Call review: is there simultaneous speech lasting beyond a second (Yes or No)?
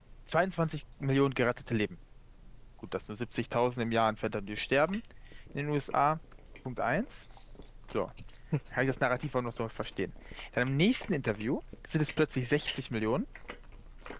No